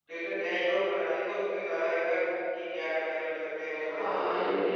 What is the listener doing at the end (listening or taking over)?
taking over